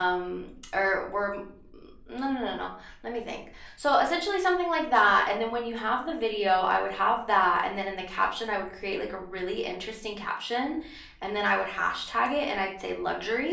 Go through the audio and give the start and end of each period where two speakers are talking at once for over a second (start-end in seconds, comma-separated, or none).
none